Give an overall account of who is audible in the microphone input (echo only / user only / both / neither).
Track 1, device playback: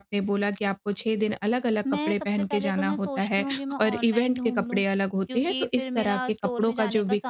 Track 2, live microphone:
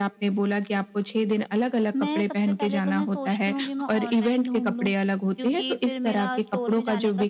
echo only